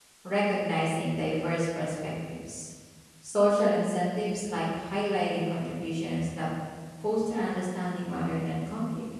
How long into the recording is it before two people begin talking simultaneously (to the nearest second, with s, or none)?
none